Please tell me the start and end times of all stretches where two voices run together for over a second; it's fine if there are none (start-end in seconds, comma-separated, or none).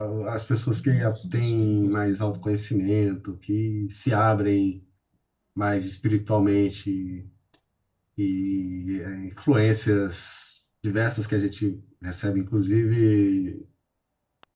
0.8-2.3